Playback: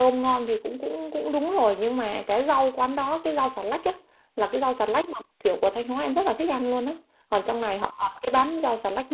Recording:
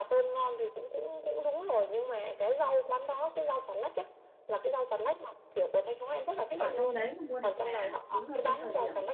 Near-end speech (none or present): present